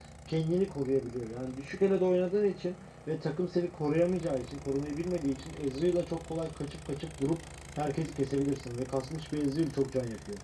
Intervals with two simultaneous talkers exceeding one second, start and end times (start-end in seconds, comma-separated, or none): none